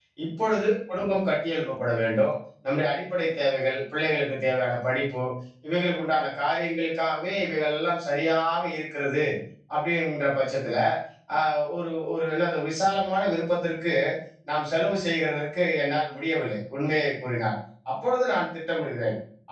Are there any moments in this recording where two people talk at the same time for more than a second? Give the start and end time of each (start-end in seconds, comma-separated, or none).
none